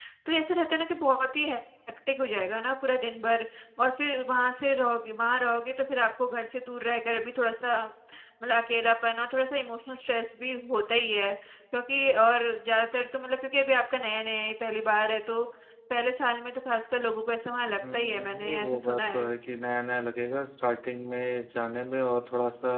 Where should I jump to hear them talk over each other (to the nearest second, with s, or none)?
18 s